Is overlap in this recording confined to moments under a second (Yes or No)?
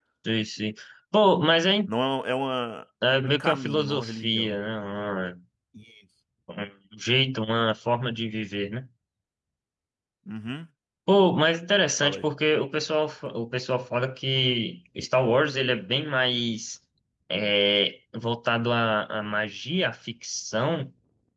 No